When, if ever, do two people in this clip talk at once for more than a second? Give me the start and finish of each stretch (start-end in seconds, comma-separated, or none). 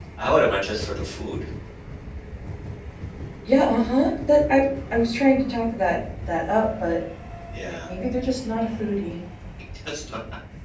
none